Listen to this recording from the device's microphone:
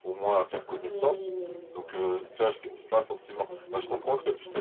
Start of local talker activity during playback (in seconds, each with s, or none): 0.7 s